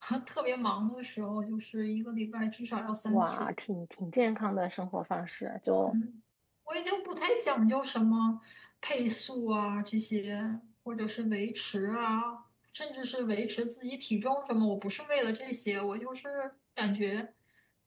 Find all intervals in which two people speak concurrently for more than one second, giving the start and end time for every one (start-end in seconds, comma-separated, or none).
none